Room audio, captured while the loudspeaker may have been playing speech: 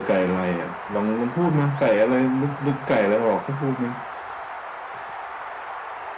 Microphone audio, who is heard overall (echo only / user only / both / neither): echo only